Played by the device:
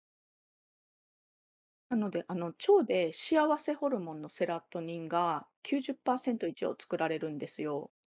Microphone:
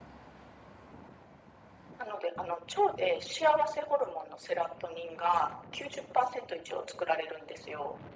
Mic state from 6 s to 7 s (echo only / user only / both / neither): echo only